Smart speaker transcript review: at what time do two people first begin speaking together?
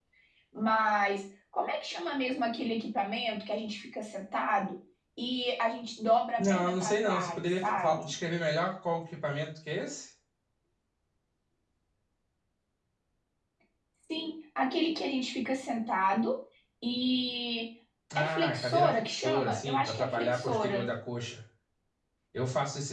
6 s

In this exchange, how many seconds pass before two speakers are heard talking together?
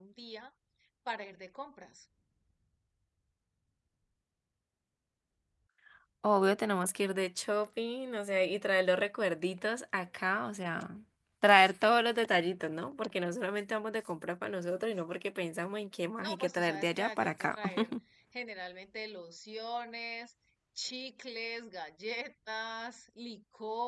16 s

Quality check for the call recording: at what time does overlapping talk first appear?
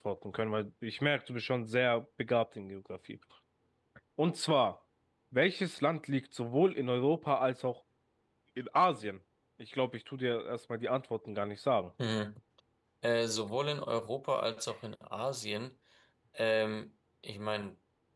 none

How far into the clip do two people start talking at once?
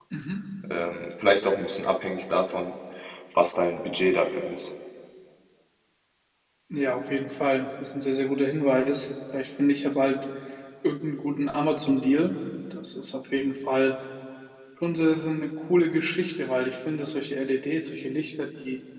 none

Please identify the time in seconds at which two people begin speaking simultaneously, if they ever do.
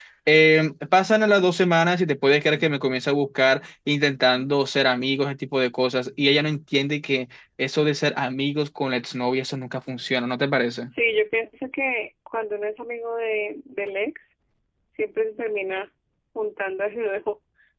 none

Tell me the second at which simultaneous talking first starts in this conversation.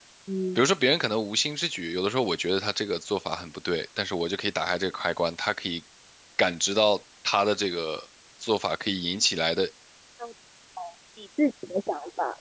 none

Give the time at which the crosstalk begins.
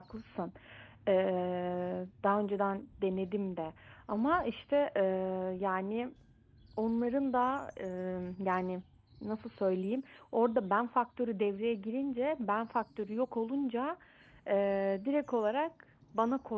none

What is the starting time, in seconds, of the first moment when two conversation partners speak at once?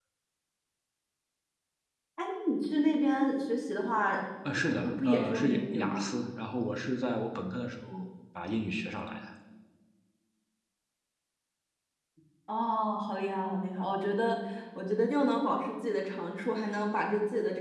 5 s

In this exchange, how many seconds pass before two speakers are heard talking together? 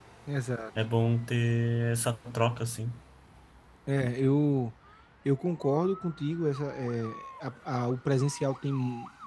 none

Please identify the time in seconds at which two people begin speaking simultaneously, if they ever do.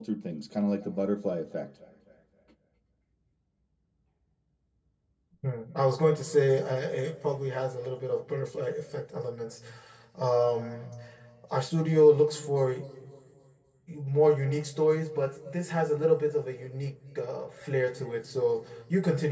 none

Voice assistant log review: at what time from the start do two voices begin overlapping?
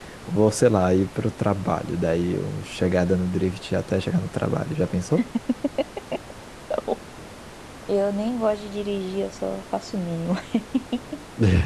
none

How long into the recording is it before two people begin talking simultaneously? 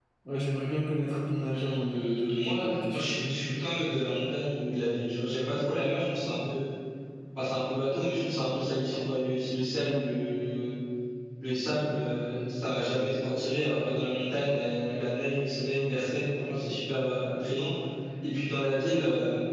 2 s

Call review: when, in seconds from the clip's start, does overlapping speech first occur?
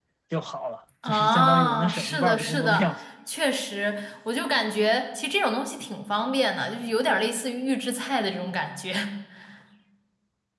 1 s

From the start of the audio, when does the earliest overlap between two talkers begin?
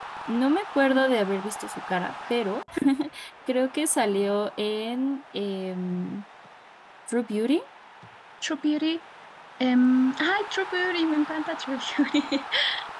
none

